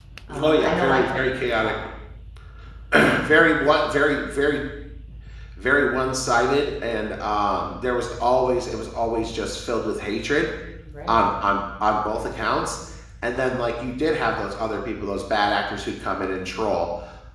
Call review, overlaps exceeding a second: present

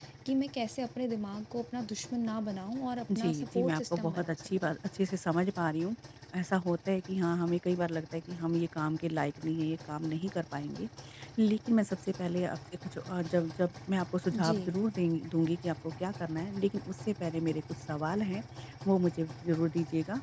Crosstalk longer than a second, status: present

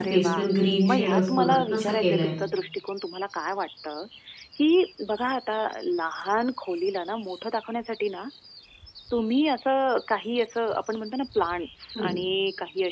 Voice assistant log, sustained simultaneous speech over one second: present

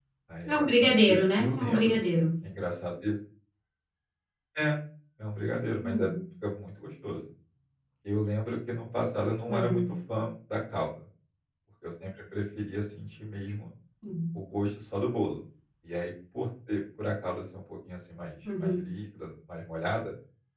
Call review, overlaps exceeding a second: present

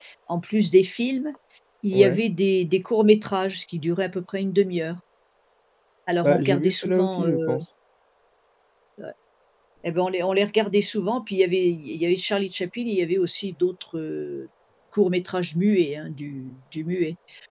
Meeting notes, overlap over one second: present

